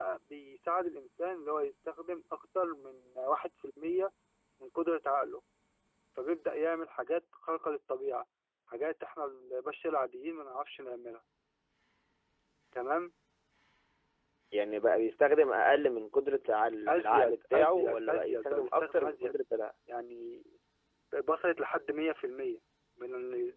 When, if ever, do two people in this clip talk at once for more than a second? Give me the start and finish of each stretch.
16.9-19.4

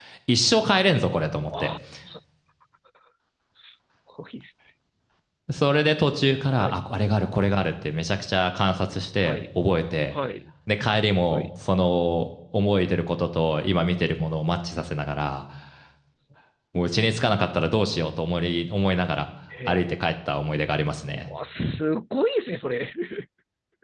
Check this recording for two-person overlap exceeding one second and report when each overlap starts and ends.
none

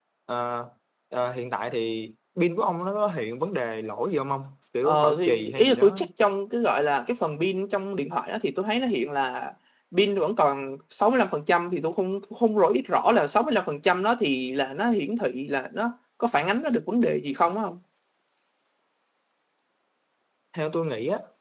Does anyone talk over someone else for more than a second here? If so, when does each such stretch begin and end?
4.8-6.0

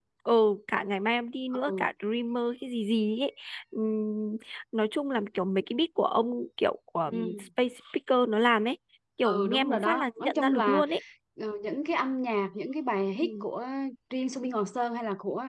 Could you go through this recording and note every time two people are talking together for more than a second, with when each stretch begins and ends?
9.2-10.8

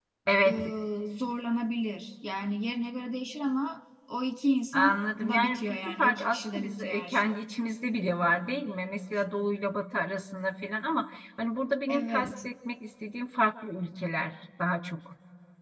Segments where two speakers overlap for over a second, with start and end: 4.7-7.4

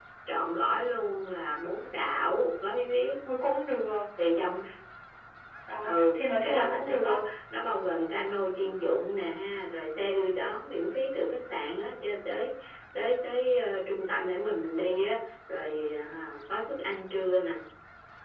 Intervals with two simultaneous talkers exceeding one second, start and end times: 5.8-7.2

